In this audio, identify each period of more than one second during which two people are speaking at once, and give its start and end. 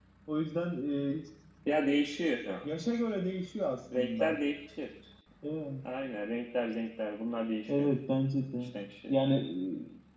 none

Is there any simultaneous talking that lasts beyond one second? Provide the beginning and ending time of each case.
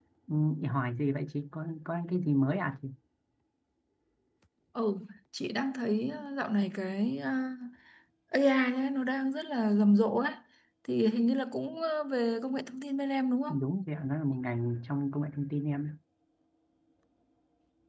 none

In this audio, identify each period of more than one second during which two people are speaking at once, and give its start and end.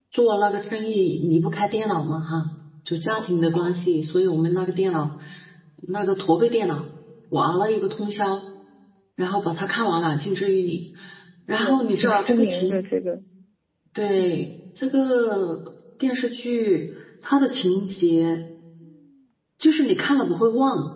11.6-12.8

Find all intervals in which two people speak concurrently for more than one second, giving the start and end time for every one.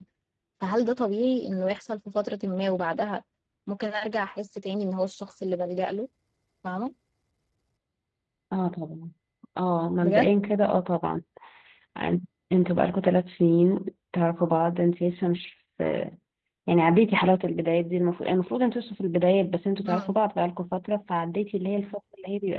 none

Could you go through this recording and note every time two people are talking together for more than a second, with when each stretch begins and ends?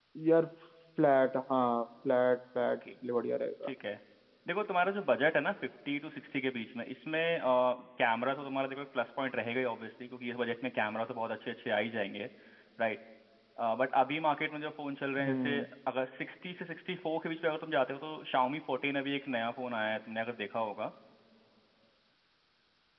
none

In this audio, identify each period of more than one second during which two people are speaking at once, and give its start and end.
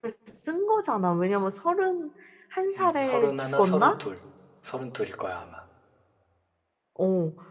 2.8-4.0

